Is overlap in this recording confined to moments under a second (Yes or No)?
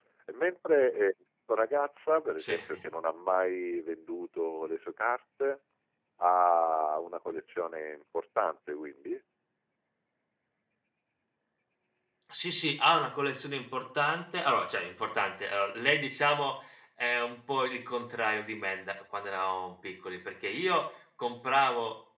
Yes